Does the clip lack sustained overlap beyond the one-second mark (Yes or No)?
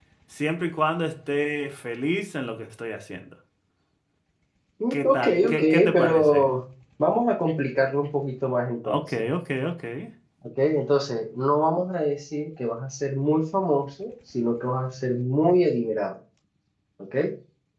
No